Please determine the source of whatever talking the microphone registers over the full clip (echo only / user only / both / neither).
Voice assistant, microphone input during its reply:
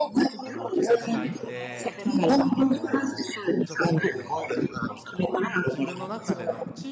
both